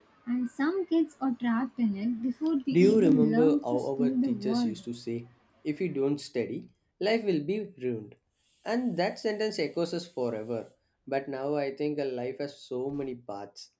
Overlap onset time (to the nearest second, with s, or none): 3 s